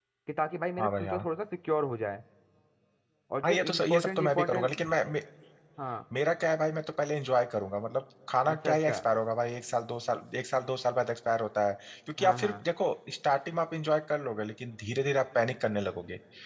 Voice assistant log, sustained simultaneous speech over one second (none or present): present